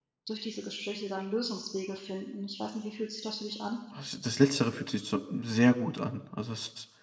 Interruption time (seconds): none

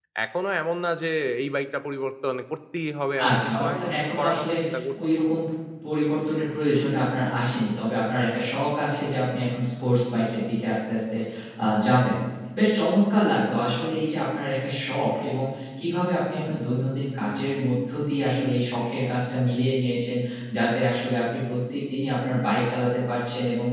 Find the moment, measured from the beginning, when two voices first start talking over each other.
3 s

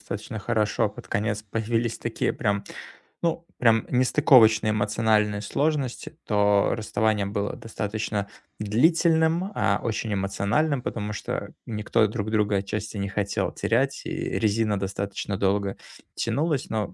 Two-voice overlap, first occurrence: none

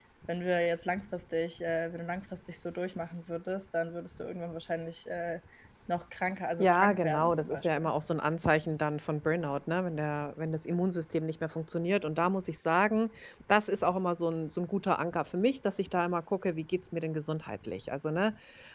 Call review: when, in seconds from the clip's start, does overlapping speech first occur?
7 s

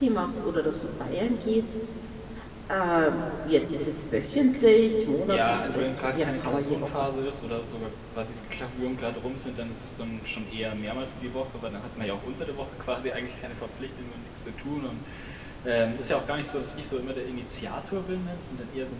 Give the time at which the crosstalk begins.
5 s

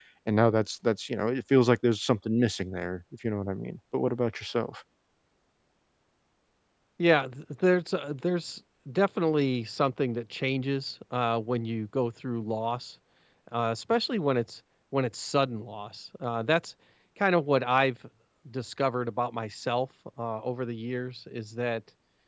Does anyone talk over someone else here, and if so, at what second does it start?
none

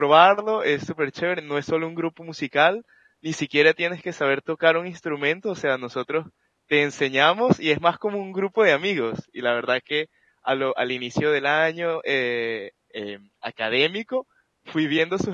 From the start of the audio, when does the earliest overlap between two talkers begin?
none

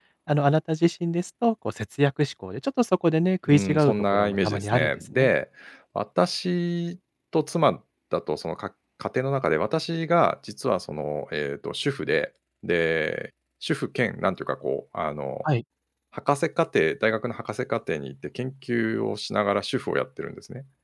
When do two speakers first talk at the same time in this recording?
3 s

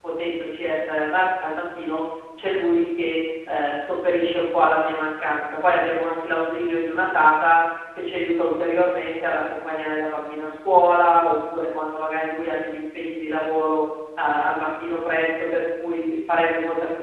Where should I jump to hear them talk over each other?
none

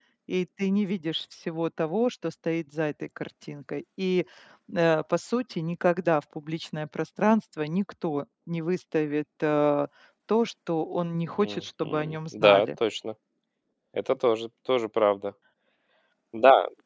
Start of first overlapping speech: 11 s

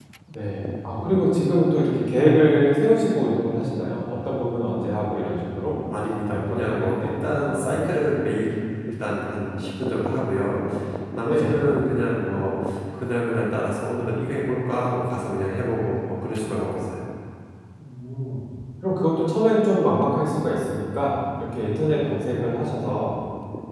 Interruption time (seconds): 6 s

